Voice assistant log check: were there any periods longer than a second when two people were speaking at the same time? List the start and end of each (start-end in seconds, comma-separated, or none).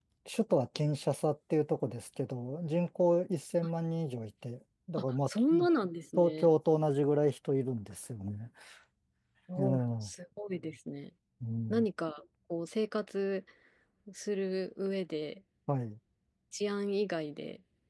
none